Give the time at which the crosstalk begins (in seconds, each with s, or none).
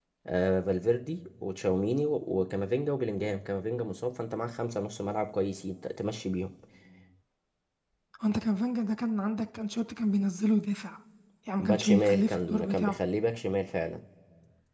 11.6 s